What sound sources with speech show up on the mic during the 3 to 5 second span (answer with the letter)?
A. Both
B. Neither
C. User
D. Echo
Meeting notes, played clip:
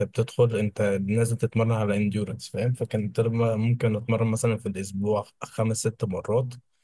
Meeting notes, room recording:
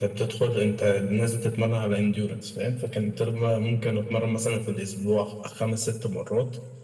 D